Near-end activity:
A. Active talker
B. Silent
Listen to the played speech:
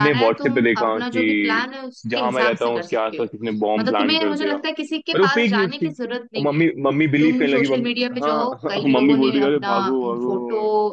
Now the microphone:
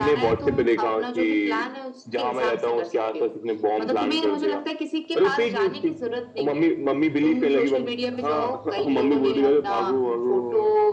B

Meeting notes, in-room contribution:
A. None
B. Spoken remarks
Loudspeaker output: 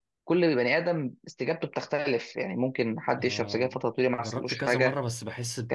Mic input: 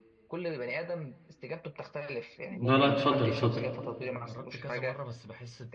B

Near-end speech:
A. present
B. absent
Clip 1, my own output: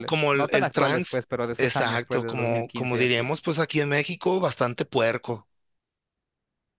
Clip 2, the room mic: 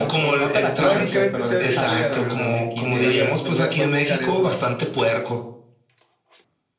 A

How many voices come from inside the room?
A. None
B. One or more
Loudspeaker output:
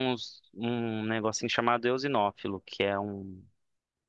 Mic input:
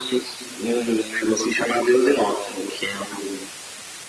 A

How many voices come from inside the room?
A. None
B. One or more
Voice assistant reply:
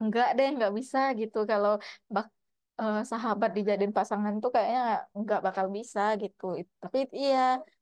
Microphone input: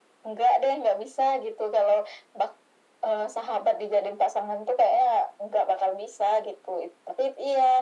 A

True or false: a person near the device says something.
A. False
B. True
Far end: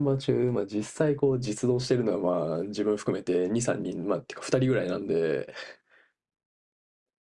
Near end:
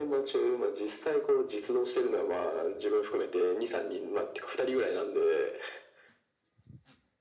A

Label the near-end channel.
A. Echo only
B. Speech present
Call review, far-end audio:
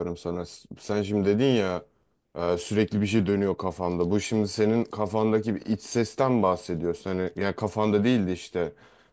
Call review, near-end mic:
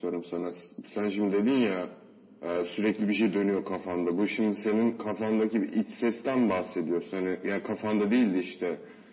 A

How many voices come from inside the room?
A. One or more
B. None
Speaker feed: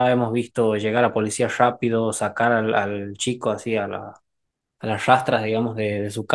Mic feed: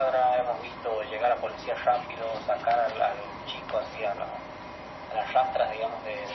B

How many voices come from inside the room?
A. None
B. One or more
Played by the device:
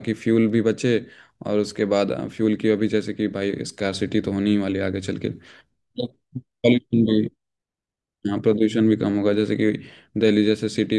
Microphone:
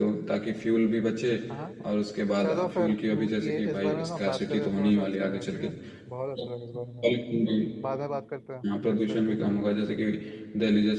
B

